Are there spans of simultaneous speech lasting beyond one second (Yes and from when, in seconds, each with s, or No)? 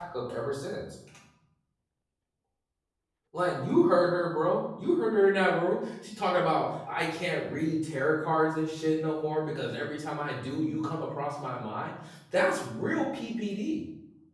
No